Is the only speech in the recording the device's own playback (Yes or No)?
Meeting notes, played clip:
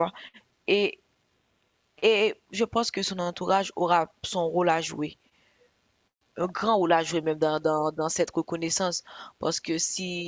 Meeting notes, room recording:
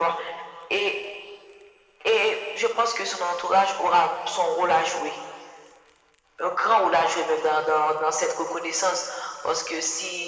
Yes